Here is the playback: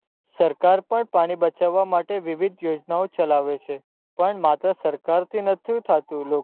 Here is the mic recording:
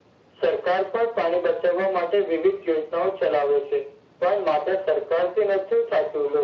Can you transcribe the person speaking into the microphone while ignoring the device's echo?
none

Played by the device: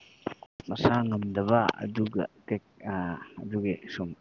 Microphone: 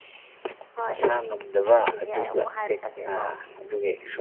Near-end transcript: ꯍꯣꯏ ꯈꯟꯈꯤꯒꯦ ꯑꯩ ꯑꯃꯨꯛ ꯍꯥꯏꯔꯛꯀꯦꯀꯣ

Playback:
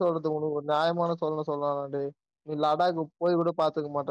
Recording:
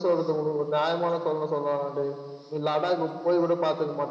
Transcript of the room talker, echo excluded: none

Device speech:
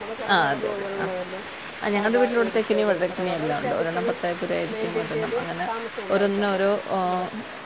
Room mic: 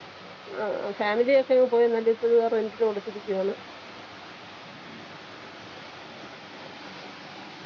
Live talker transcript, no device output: ആ ഫാമിലിയൊക്കങ്ങ് പോയി എന്നാല് ഇപ്പ ഇ റെന്റിന് കൊടുത്തിരിക്കുവാണ്

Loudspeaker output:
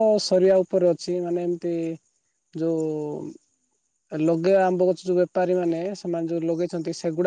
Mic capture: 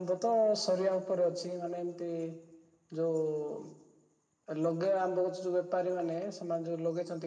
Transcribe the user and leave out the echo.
none

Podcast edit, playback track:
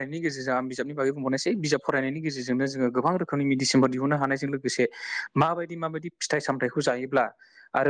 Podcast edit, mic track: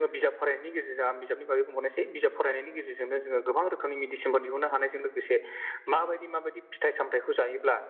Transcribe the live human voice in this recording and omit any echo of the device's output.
none

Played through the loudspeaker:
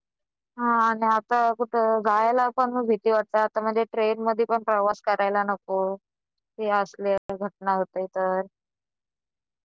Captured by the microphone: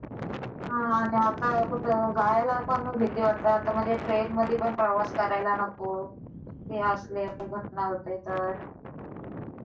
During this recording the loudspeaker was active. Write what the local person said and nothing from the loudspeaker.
none

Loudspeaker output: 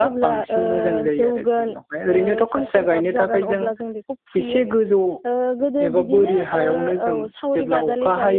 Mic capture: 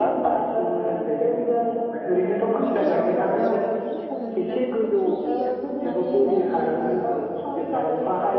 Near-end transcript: बिनि उनावहाय औ बिदिनो जोंङो लिंनानै बेखौ फुहोयो। फुनानै बिदि जोङो

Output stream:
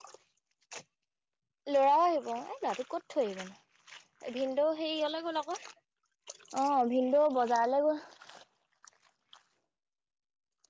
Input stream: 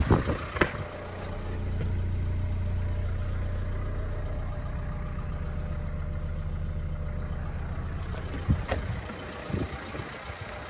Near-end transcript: none

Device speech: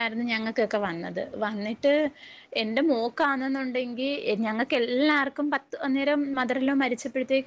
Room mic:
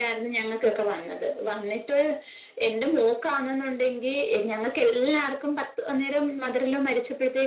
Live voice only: none

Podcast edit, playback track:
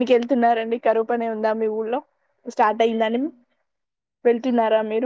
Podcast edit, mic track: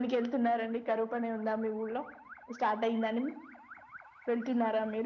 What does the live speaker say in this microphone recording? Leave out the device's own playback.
none

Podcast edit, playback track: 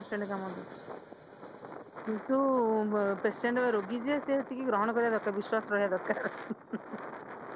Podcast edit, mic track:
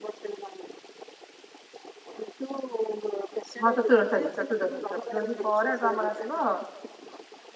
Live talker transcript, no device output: ମହାତ ତୁଳ ଚାରି ଚତୁର୍ଦଶି ଚତୁର୍ଦଶି ପରେ ଏଟି ଆମର ଆସିବ

